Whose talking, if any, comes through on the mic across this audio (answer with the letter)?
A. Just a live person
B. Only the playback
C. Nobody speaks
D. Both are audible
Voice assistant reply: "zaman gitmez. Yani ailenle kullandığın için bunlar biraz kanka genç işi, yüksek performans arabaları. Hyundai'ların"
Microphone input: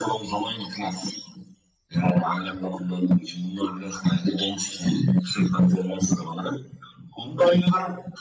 B